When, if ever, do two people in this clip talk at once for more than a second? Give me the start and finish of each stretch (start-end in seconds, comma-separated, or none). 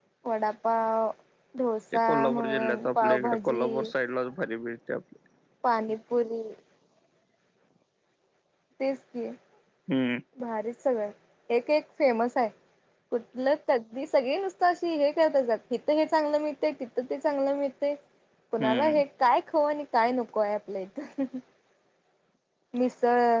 2.1-3.7